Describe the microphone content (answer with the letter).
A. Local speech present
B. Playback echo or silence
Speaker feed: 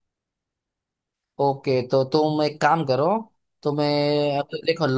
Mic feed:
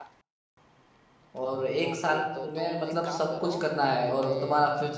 A